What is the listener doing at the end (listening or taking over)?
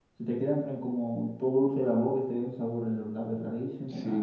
taking over